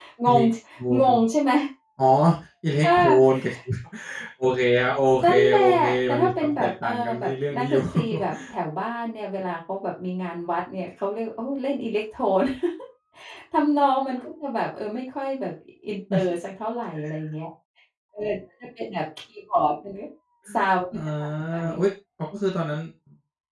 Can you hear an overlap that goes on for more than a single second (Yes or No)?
Yes